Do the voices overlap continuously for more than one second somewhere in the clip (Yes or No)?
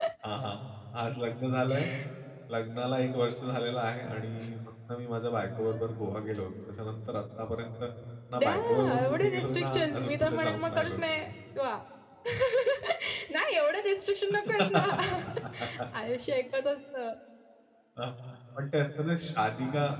Yes